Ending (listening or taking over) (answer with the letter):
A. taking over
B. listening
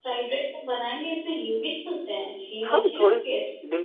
A